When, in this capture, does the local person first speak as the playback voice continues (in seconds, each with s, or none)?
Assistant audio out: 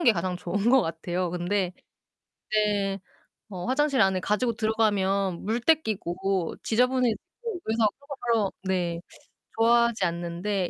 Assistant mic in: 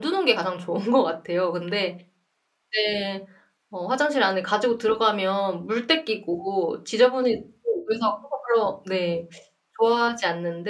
none